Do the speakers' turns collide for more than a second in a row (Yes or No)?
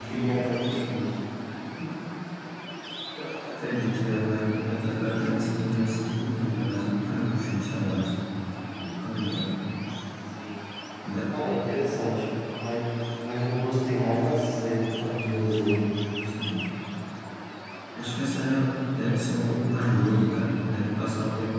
No